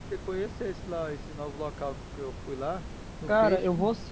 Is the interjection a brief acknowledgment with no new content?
No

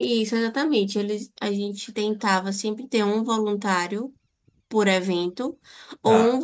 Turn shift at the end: No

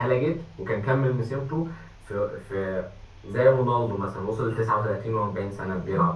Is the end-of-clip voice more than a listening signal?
Yes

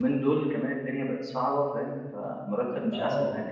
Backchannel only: No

